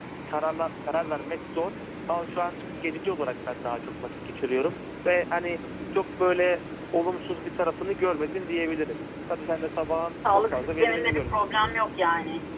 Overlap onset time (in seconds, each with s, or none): 10.2 s